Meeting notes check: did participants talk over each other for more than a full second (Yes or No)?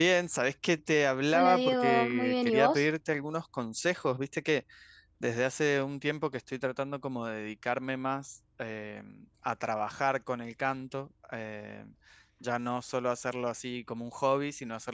Yes